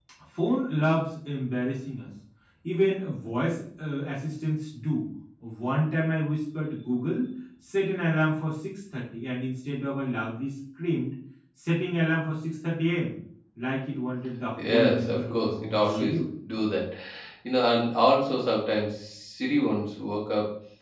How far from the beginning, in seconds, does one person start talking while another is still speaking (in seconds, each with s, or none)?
14.6 s